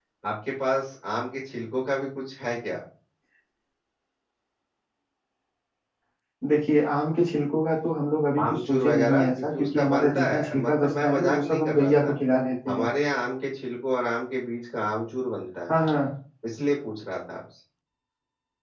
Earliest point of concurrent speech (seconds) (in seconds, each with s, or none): 8.3 s